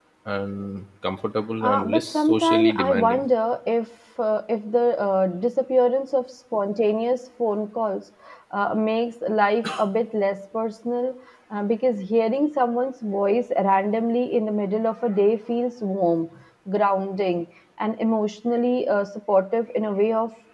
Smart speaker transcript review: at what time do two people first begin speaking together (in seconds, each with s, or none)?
1.6 s